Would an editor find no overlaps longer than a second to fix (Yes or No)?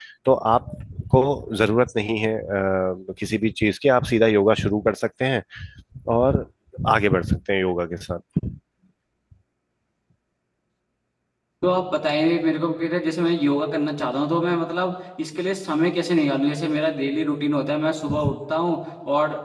Yes